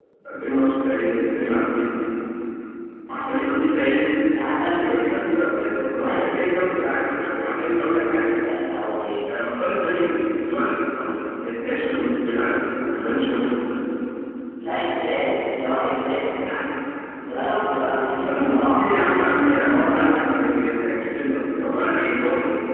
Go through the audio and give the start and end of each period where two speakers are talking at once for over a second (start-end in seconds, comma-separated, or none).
18.2-20.1